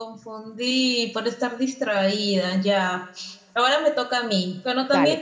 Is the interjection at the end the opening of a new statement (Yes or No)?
No